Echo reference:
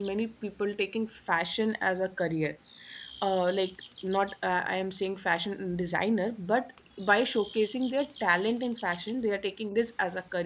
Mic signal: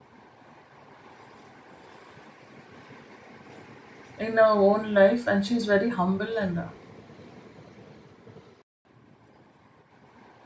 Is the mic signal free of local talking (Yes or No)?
No